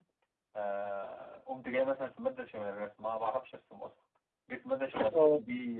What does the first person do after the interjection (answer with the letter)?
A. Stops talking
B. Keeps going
B